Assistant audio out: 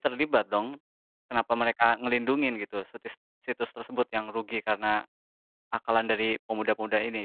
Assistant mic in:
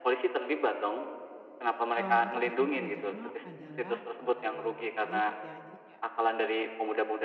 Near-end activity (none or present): present